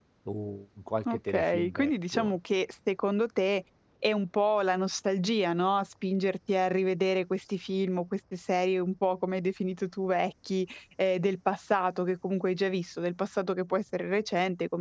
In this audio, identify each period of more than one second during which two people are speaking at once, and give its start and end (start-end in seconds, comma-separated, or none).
1.1-2.3